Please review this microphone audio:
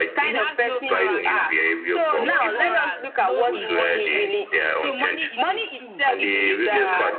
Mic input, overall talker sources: both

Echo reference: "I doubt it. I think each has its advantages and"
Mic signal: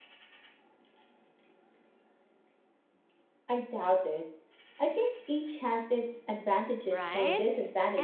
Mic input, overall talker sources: both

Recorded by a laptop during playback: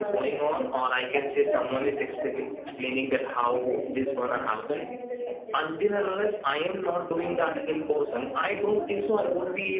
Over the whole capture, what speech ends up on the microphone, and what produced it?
both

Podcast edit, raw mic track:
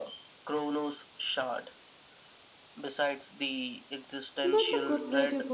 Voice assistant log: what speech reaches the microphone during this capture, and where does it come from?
both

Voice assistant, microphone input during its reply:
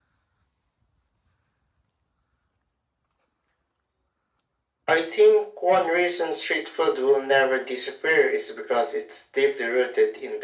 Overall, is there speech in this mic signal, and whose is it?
echo only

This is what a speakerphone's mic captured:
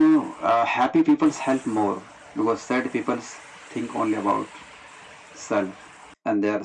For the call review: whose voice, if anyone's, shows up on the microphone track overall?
echo only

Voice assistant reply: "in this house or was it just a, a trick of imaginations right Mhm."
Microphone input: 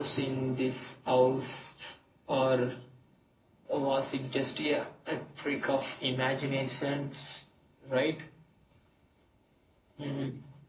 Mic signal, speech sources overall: echo only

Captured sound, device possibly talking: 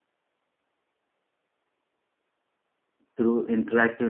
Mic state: user only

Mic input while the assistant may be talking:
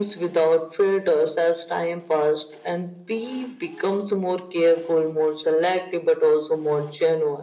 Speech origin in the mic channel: echo only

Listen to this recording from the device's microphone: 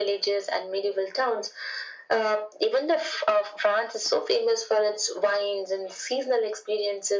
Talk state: echo only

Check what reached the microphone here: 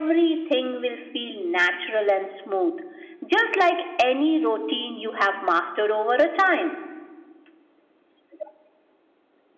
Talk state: echo only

